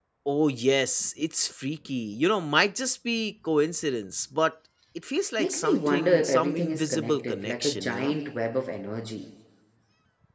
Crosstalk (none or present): present